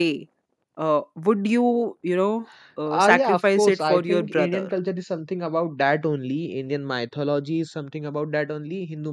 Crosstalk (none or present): present